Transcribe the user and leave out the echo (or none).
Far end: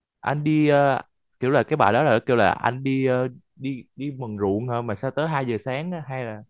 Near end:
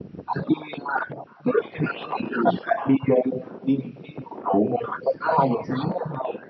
none